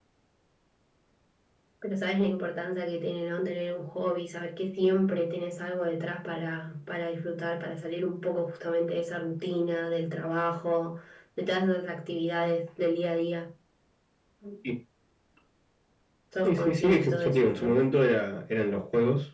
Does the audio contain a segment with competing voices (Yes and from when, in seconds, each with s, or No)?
Yes, from 16.4 s